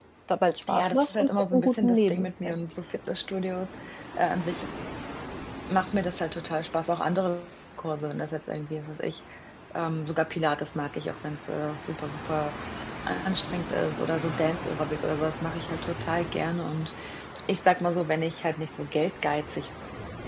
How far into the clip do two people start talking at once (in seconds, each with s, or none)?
0.7 s